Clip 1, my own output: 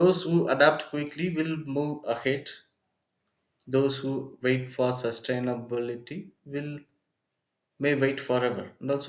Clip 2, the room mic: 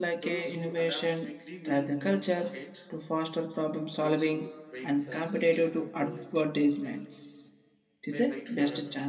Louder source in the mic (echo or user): user